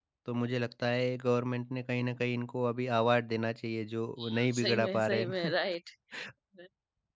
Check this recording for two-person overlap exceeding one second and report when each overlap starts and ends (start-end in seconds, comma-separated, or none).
4.2-5.5